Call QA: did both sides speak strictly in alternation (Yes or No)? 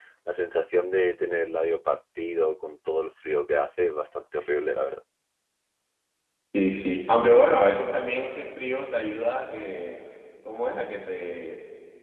Yes